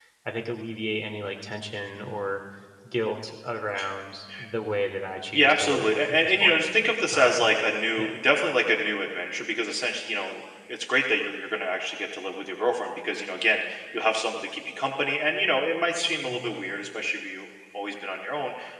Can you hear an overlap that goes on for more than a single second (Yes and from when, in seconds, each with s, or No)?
Yes, from 5.3 s